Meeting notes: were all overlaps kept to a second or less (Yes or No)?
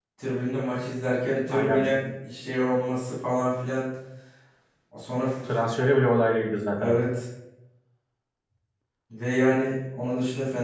Yes